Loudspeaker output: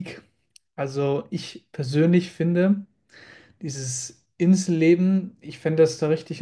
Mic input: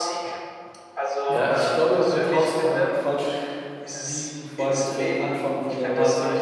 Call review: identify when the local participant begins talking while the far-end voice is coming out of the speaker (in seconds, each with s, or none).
1.2 s